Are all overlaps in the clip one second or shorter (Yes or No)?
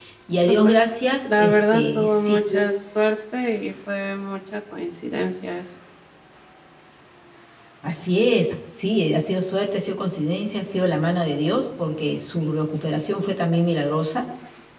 No